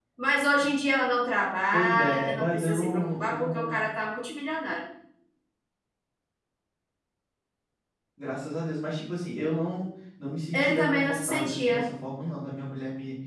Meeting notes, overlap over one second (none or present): present